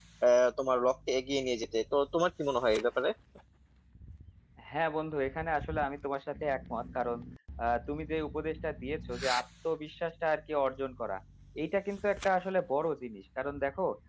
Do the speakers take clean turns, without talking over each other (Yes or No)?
Yes